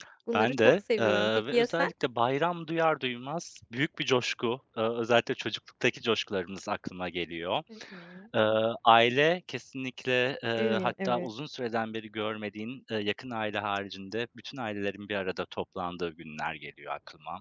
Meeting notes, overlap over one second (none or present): present